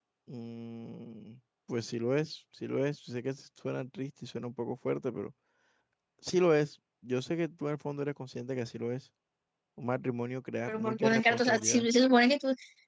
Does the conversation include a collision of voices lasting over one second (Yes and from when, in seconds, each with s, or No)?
Yes, from 10.7 s